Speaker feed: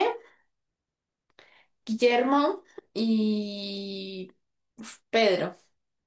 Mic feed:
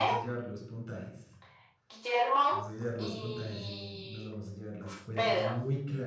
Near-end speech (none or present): present